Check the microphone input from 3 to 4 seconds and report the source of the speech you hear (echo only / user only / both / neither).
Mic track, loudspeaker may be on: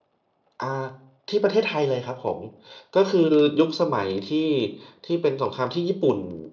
user only